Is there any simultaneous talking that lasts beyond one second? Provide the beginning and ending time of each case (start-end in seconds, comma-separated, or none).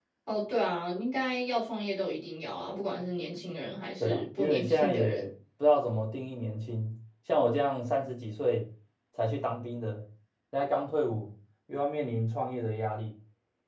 4.0-5.3